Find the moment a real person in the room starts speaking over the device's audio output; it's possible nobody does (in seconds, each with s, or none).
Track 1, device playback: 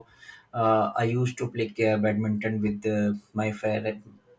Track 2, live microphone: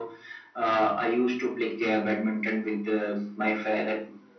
none